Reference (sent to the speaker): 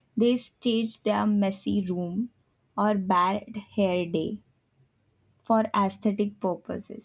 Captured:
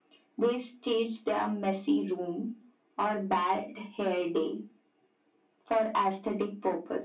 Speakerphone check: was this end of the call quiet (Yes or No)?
Yes